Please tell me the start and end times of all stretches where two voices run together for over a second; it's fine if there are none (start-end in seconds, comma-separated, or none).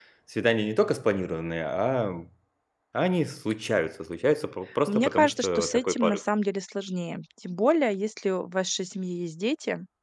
4.9-6.2